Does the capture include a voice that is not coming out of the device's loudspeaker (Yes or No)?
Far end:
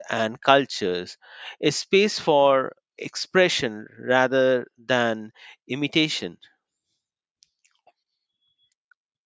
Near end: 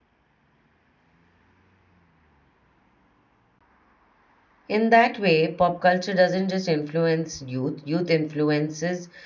Yes